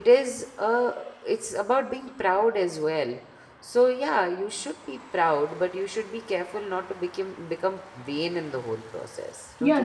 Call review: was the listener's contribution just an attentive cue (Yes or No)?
No